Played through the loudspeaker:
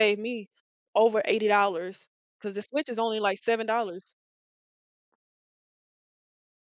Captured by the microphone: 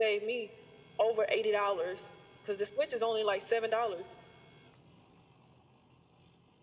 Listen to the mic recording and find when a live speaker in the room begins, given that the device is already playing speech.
none

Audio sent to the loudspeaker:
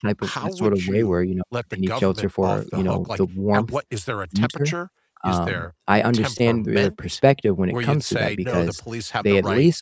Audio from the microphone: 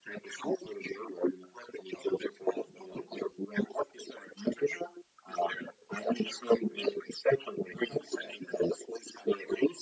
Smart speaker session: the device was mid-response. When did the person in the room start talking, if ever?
none

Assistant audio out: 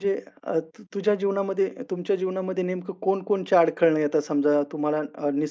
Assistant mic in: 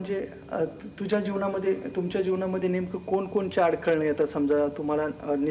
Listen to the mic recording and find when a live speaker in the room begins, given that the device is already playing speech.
none

